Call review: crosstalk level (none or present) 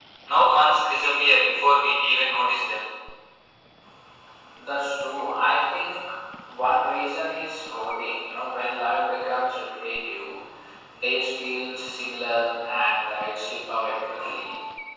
none